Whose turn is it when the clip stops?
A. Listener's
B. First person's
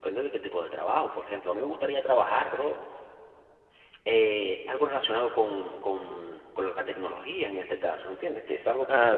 B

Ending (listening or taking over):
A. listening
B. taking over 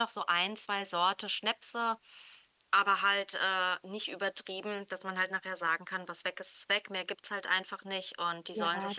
B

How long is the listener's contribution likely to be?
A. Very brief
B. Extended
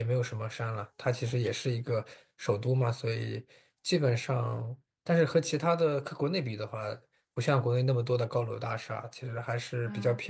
A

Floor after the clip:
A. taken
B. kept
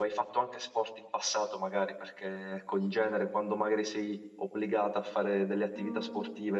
B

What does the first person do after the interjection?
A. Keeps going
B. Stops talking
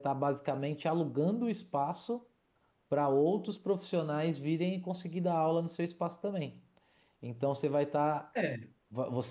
A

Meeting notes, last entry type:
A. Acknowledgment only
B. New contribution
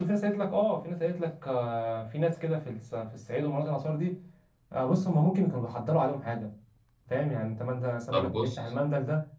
A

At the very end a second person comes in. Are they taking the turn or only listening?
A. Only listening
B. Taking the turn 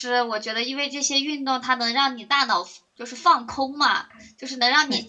A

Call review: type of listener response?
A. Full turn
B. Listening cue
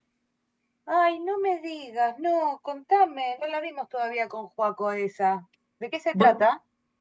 A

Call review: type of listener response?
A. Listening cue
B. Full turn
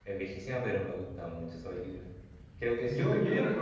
B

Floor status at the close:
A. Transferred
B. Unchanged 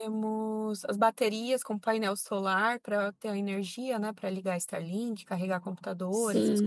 A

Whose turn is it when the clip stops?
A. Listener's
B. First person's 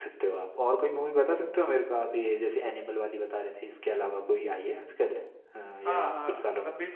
A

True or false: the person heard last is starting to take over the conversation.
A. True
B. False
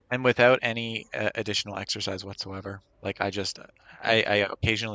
B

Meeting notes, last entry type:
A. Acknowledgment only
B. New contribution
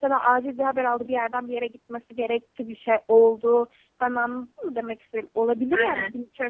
A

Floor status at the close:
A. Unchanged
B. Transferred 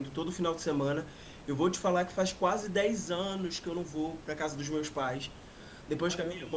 A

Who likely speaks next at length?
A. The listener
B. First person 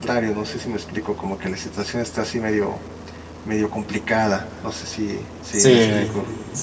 A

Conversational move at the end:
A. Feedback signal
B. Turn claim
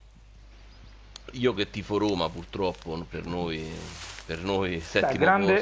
B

